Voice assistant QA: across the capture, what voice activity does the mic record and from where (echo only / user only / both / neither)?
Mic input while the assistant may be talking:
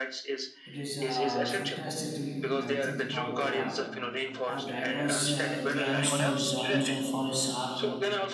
both